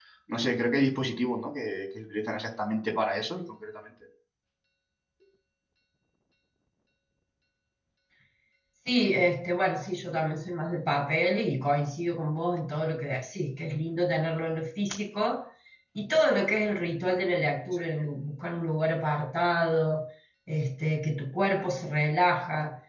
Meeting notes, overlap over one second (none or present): none